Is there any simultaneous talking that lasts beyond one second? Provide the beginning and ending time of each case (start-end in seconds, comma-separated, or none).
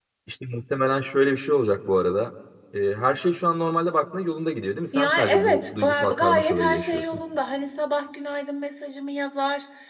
4.9-7.2